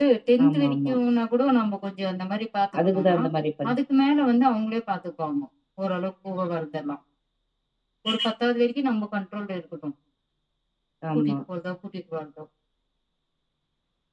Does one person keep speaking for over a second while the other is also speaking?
No

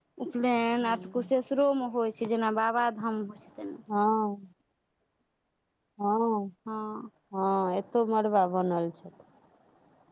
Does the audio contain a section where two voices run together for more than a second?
No

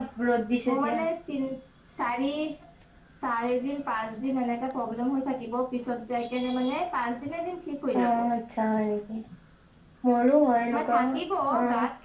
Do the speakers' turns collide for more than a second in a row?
No

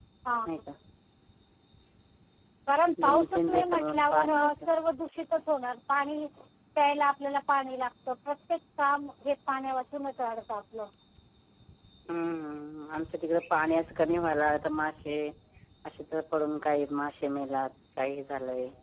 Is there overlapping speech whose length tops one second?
Yes, from 3.0 s

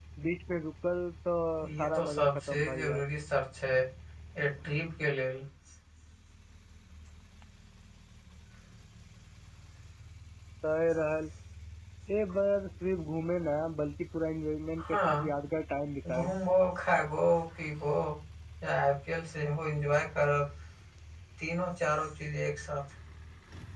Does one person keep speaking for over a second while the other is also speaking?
Yes, from 1.8 s

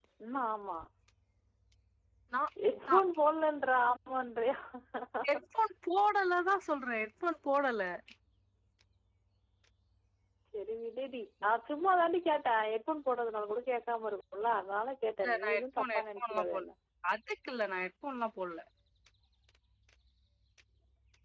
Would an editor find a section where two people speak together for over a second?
Yes, from 15.2 s

